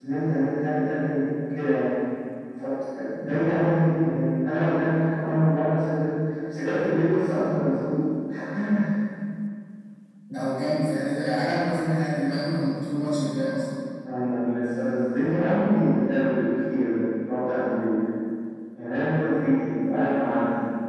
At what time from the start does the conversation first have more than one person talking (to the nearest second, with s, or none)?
none